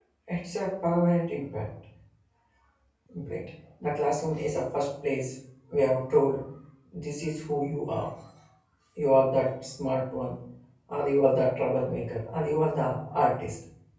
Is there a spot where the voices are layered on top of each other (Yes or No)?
No